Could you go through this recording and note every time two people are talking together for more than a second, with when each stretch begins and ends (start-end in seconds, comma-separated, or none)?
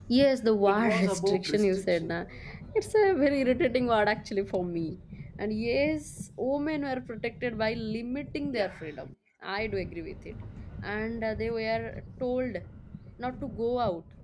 0.7-2.2